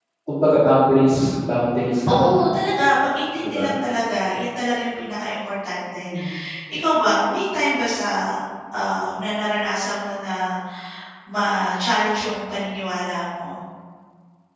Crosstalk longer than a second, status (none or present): none